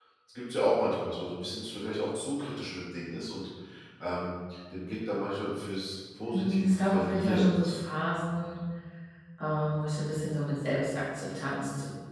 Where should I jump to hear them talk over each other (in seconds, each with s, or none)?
6.3 s